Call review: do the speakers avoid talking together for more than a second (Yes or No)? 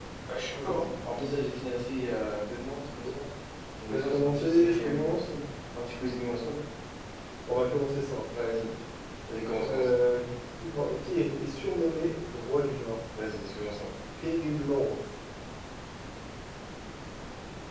No